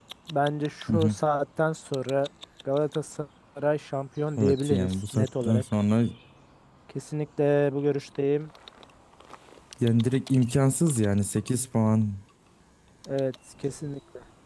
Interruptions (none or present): present